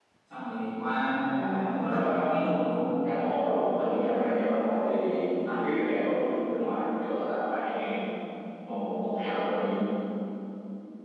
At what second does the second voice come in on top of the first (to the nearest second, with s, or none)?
1 s